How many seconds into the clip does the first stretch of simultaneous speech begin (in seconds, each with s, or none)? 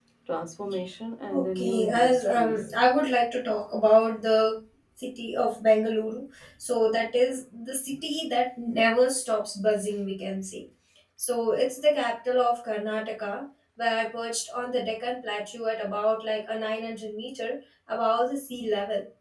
1.3 s